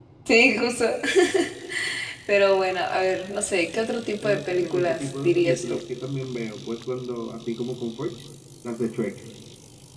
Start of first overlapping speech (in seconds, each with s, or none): 4.2 s